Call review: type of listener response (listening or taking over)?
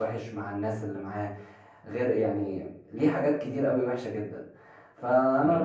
listening